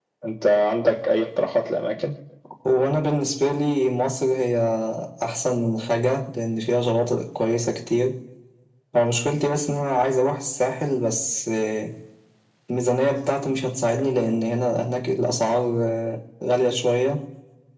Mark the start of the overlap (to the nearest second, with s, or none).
none